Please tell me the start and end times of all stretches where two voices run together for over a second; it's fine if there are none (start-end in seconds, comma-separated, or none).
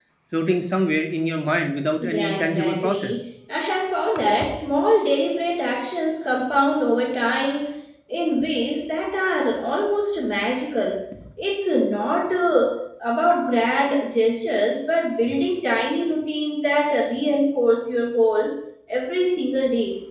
2.0-3.2